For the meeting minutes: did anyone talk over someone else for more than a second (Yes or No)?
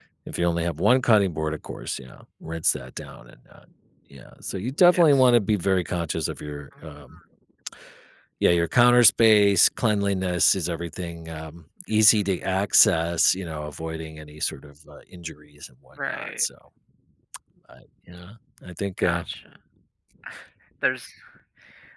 No